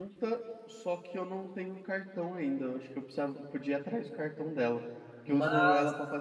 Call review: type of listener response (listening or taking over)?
listening